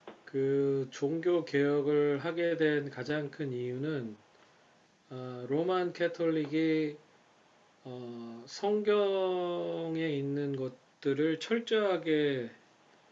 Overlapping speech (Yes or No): No